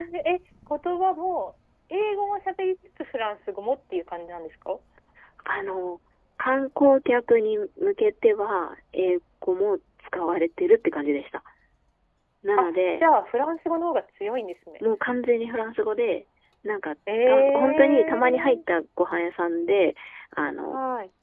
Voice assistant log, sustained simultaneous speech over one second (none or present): present